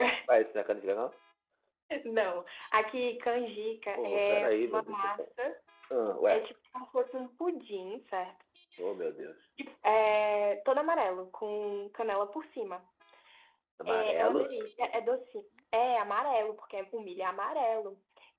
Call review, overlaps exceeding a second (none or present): present